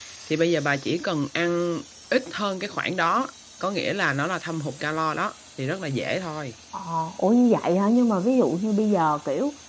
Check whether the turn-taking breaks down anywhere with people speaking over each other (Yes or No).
No